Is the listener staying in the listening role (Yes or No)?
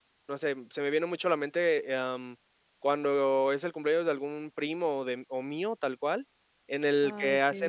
Yes